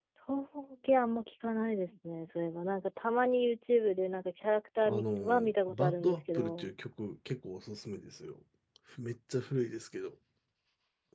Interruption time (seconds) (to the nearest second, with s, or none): 5 s